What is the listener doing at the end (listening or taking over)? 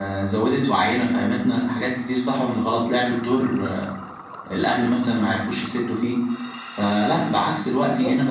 listening